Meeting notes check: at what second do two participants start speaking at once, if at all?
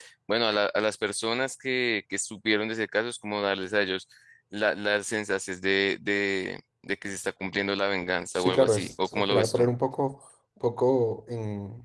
8.3 s

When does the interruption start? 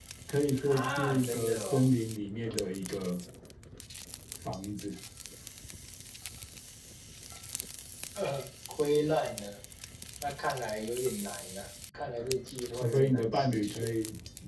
0.6 s

